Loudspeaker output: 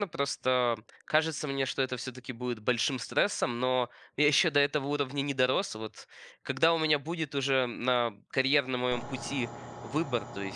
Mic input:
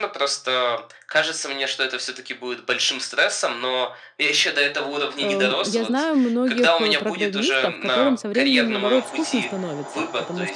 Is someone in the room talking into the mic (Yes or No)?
Yes